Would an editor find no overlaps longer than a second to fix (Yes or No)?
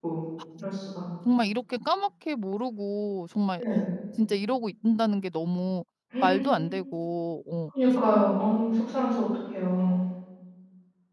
Yes